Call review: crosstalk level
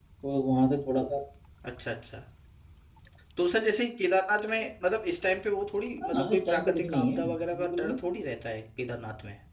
present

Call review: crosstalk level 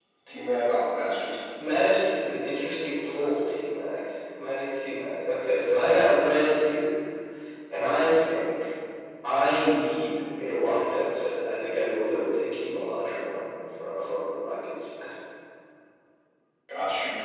none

